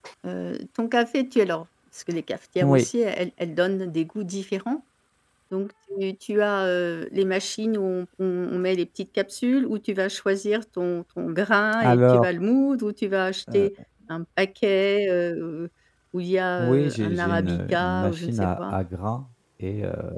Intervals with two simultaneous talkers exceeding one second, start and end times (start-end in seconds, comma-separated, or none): 16.6-18.8